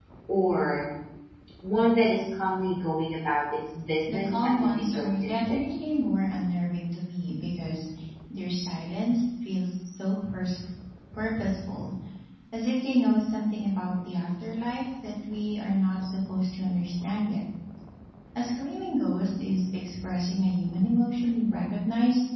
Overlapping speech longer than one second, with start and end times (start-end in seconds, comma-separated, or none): 4.1-5.7